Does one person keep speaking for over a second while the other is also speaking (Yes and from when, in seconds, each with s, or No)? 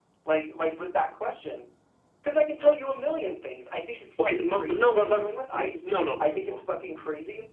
Yes, from 4.2 s